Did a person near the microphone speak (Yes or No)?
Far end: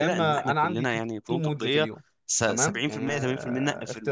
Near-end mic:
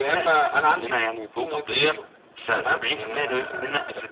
No